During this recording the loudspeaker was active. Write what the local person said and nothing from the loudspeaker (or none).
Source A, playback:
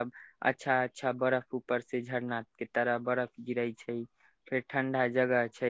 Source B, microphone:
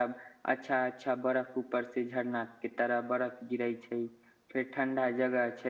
none